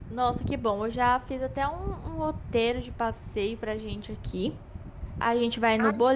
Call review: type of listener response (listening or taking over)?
listening